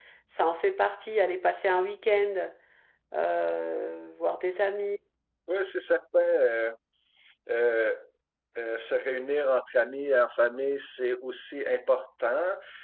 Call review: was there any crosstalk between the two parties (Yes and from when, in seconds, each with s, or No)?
No